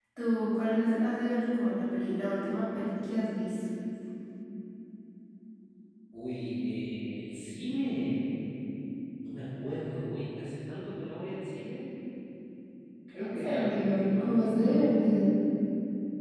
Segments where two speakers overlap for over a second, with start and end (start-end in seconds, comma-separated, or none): 13.1-14.9